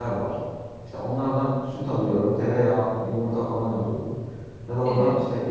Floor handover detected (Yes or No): No